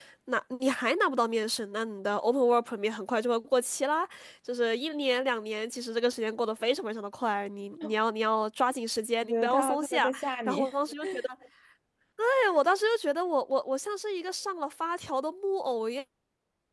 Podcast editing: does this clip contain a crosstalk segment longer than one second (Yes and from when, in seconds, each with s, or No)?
Yes, from 9.2 s